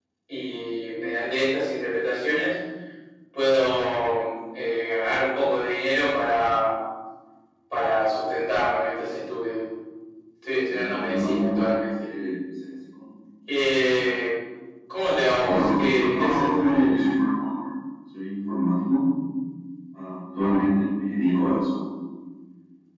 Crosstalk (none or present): present